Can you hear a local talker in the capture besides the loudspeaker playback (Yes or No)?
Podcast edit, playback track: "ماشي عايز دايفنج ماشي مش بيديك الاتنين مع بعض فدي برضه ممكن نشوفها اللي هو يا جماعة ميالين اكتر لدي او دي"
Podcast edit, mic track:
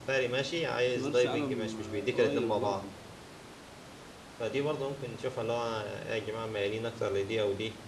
Yes